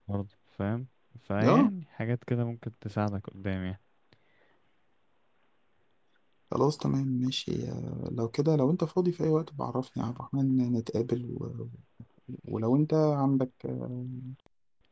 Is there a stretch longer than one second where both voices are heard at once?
No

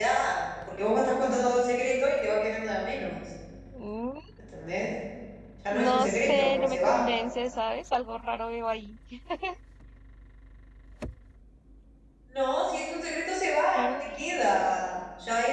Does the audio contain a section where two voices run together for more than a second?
Yes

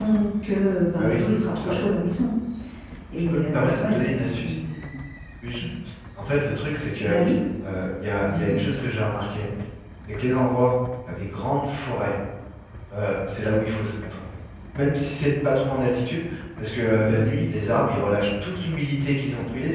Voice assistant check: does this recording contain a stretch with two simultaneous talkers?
Yes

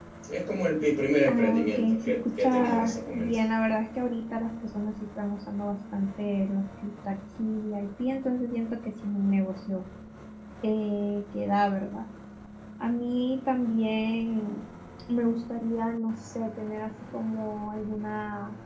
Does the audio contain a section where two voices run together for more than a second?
Yes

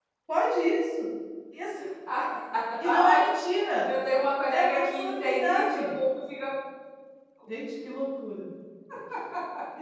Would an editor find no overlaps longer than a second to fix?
No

